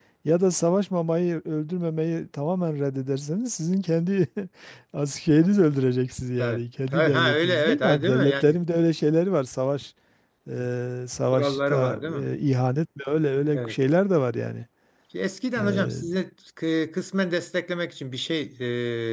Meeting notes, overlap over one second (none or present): present